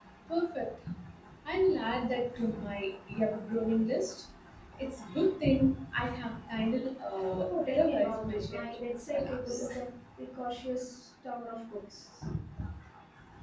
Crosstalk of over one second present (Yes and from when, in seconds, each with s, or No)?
Yes, from 7.5 s